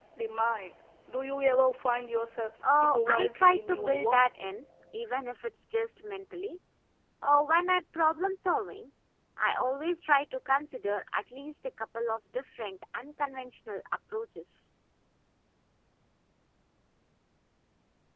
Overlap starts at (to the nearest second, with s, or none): 3 s